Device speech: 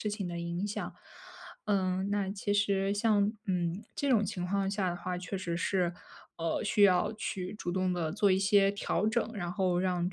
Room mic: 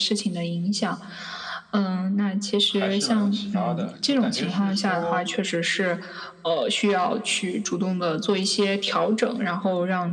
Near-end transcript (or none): 还是蛮有启发的，就感觉是说，